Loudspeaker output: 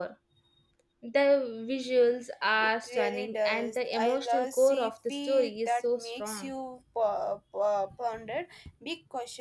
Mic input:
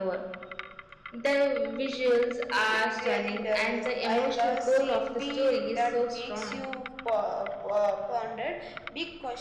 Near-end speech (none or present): none